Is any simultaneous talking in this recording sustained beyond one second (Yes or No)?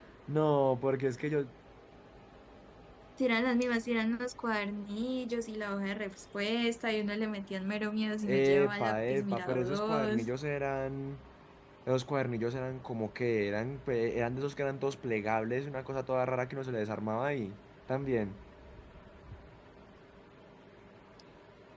Yes